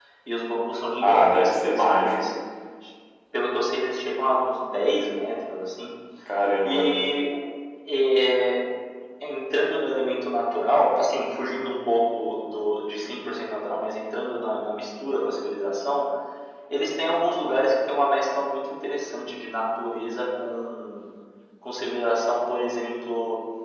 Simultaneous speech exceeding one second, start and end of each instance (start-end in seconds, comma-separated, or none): 1.0-2.3